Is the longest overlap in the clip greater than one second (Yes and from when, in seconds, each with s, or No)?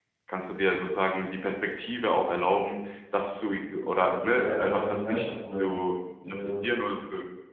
Yes, from 4.2 s